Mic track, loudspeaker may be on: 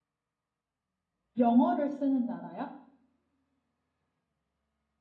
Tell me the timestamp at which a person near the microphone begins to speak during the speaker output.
1.4 s

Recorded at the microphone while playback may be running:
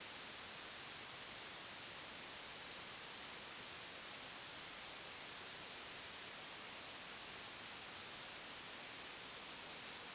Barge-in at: none

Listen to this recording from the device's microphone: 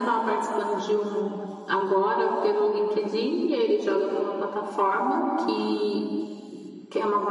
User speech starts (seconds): none

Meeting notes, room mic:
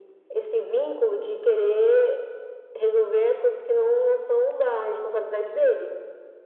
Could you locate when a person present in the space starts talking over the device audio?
none

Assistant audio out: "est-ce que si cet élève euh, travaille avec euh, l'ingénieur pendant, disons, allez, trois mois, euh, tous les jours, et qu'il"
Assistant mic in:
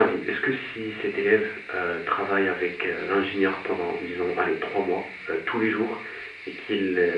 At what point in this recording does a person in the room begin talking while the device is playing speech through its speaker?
none

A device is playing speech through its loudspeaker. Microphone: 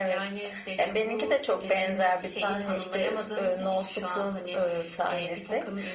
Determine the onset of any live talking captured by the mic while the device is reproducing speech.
none

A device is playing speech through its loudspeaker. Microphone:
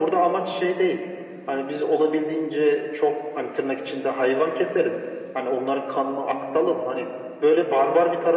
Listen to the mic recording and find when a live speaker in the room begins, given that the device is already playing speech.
none

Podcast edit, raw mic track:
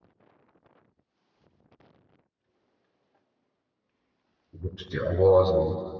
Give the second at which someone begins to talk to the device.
4.5 s

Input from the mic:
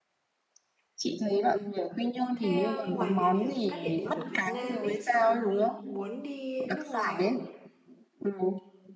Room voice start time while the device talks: 2.3 s

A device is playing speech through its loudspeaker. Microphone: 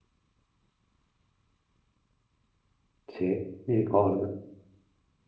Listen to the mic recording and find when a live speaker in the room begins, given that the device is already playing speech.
3.1 s

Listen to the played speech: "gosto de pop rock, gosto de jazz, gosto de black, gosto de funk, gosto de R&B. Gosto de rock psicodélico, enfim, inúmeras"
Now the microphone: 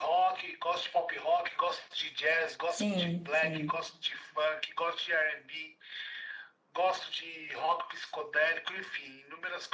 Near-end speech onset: 2.7 s

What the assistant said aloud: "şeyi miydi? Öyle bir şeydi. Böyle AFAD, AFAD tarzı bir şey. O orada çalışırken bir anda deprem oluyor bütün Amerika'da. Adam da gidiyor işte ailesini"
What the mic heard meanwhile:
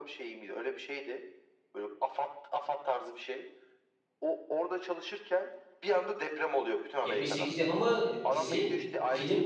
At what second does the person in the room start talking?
7.0 s

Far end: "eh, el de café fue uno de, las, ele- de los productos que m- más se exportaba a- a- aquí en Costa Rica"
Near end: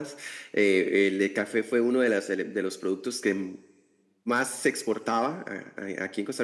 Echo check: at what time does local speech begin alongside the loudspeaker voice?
none

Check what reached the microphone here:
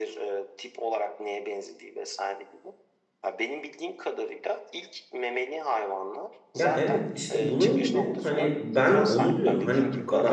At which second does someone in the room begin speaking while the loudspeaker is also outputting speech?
6.5 s

